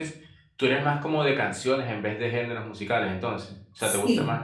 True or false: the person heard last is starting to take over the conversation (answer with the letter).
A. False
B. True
B